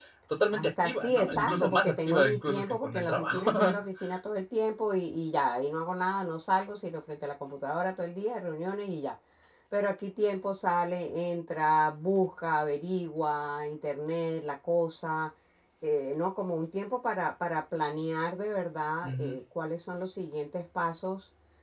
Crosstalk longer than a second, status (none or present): present